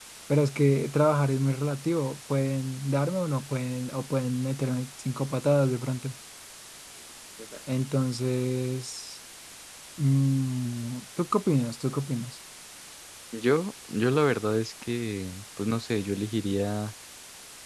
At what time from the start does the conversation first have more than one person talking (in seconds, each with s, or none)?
none